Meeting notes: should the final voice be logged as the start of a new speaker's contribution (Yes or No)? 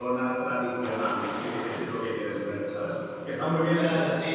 Yes